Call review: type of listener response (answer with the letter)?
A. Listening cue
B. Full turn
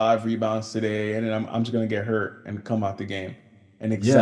B